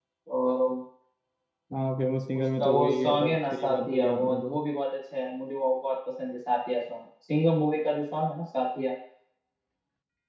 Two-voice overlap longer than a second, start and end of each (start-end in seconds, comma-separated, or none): 2.4-4.5